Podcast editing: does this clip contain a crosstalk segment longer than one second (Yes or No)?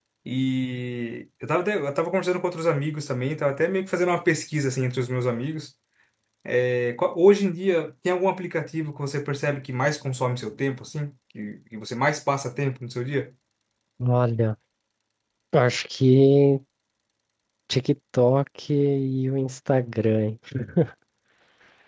No